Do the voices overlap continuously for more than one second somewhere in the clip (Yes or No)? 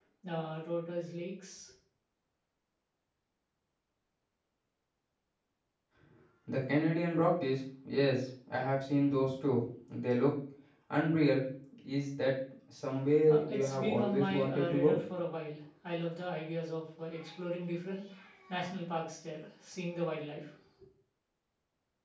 Yes